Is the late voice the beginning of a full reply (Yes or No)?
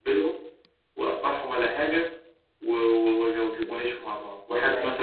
No